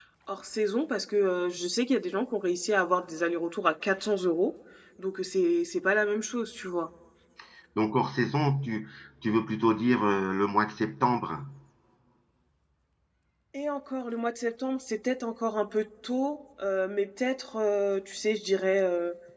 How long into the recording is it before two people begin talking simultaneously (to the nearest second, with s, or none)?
none